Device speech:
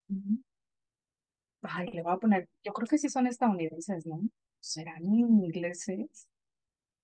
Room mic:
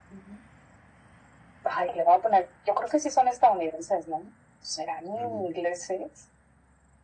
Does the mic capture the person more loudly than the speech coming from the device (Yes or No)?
No